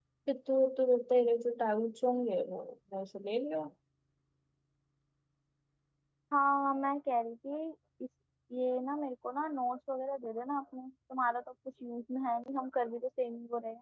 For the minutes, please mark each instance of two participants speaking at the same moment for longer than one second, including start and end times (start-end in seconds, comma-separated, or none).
none